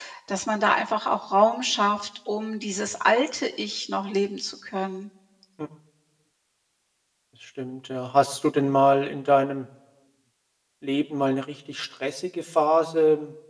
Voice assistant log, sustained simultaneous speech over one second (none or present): none